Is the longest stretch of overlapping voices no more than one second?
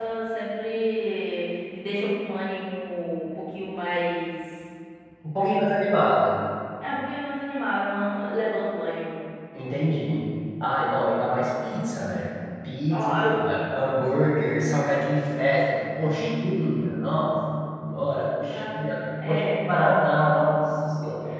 No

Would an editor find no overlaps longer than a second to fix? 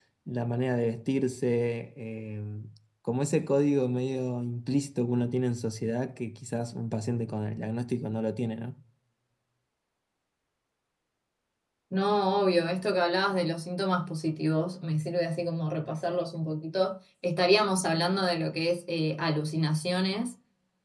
Yes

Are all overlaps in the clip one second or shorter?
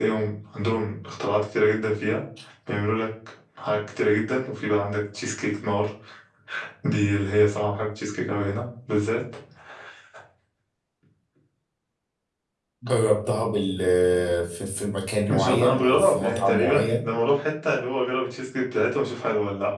No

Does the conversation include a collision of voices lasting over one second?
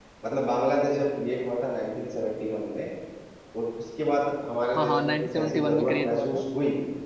Yes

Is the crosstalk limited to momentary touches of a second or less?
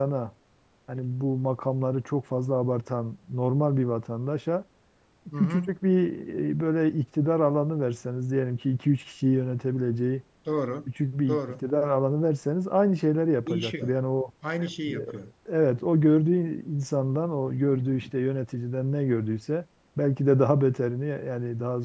Yes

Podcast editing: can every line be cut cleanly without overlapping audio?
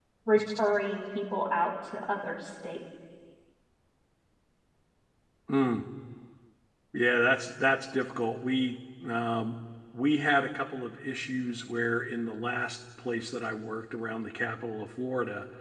Yes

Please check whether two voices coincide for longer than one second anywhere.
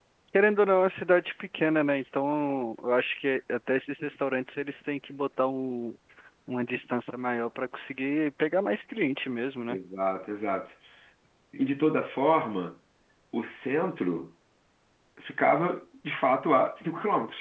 No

